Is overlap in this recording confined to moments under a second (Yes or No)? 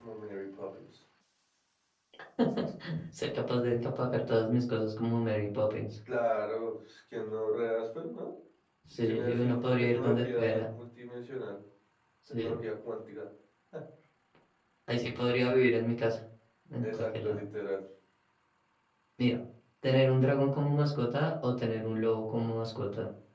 No